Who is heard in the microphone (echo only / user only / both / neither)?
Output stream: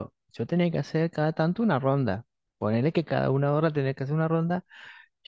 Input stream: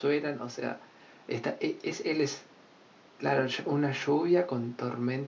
user only